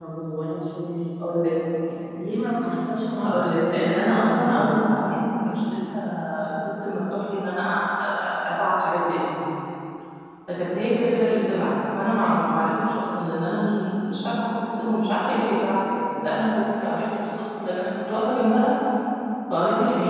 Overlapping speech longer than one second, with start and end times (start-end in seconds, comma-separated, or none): 3.2-4.8